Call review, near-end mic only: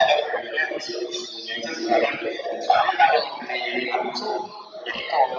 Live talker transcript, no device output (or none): none